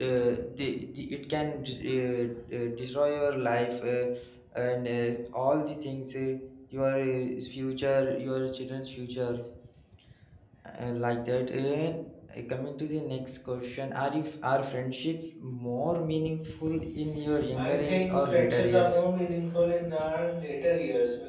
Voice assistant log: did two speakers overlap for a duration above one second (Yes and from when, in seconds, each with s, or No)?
Yes, from 17.5 s